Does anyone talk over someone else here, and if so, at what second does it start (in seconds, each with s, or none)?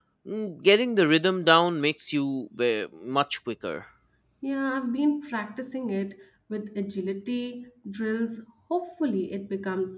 none